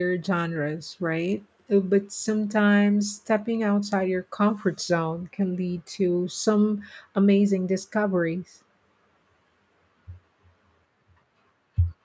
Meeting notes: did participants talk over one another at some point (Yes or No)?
No